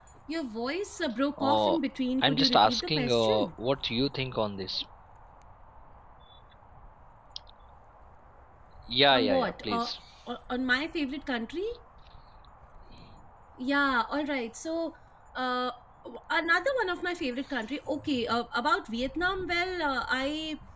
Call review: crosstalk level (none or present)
present